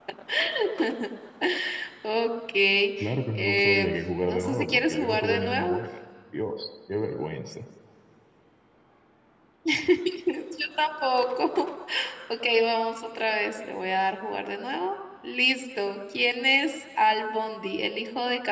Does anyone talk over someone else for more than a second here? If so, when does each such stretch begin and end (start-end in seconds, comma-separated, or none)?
4.3-5.8